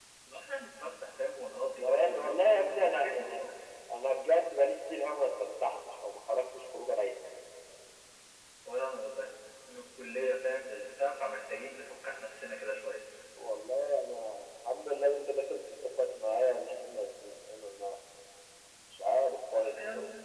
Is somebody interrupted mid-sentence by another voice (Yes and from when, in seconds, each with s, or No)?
Yes, from 1.8 s